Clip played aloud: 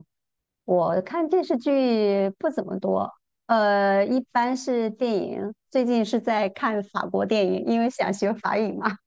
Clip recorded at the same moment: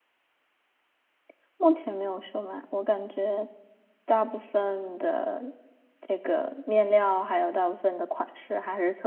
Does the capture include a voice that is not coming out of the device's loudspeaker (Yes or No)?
Yes